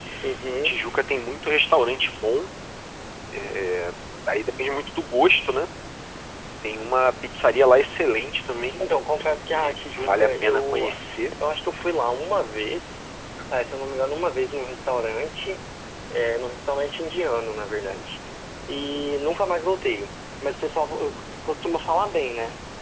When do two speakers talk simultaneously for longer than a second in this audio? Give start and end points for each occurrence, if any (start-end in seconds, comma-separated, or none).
9.5-10.9